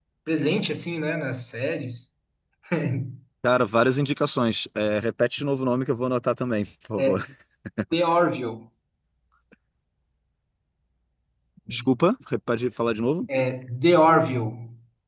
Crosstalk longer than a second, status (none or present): none